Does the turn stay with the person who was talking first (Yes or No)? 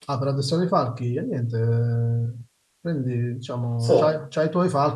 Yes